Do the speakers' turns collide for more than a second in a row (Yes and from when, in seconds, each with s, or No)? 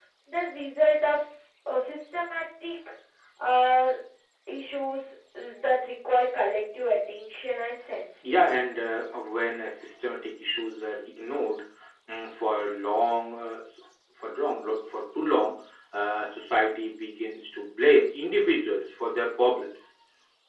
No